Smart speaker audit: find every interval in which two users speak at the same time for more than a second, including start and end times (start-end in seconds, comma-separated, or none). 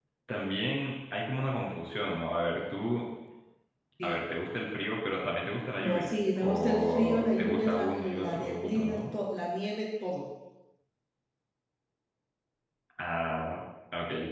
5.8-9.0